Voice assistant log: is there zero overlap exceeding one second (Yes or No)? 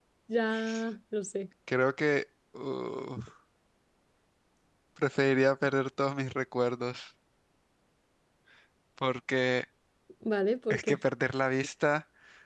Yes